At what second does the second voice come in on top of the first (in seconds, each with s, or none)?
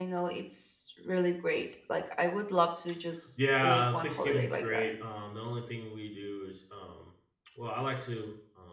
3.6 s